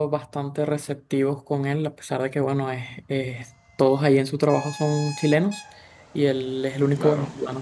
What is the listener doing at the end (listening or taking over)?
listening